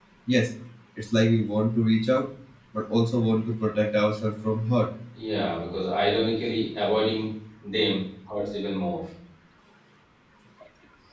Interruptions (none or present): none